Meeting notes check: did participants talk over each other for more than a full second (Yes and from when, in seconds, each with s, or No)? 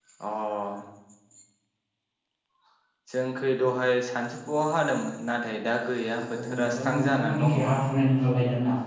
Yes, from 6.2 s